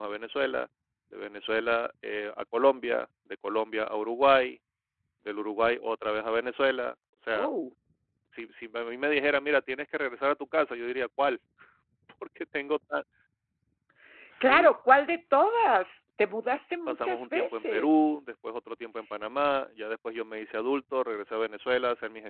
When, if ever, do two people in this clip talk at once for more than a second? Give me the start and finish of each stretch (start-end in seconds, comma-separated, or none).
16.9-18.1